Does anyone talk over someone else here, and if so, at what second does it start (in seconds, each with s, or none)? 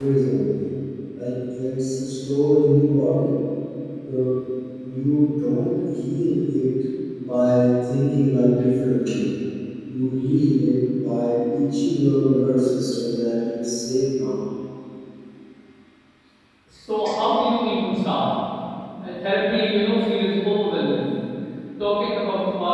none